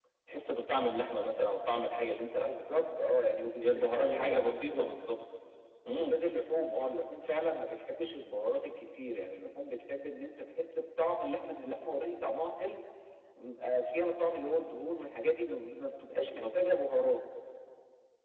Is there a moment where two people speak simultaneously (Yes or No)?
Yes